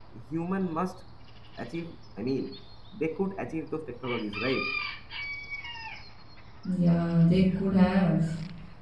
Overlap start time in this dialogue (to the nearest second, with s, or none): none